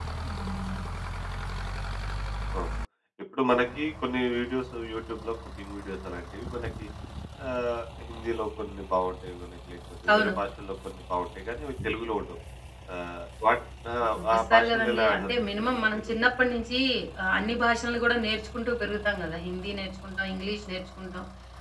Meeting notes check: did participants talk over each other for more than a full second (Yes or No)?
Yes